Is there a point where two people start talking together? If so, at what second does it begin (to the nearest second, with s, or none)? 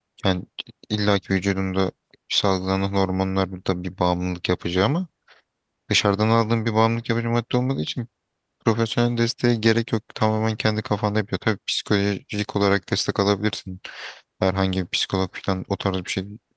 none